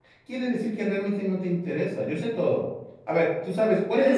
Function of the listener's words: taking over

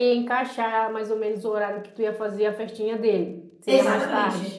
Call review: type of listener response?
taking over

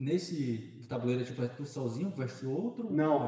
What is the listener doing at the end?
taking over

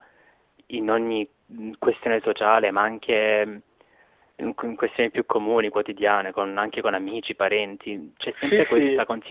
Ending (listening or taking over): listening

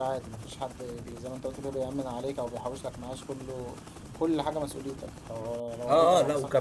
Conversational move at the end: taking over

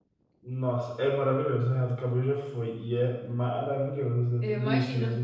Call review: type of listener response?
listening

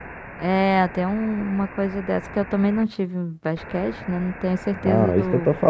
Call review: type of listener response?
taking over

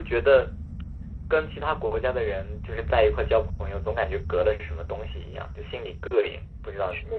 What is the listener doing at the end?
taking over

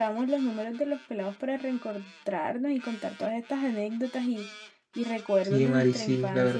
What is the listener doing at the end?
taking over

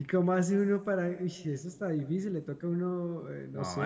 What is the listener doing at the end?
taking over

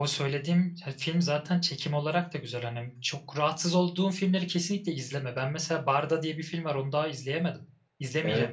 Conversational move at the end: taking over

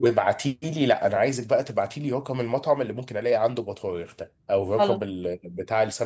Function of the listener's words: listening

